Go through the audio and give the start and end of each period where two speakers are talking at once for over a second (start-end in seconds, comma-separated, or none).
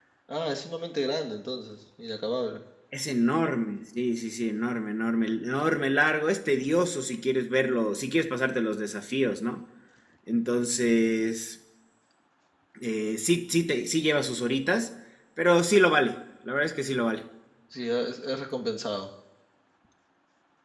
none